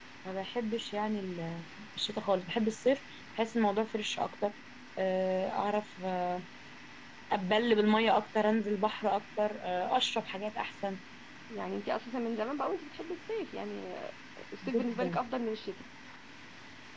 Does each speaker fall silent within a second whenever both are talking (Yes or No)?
Yes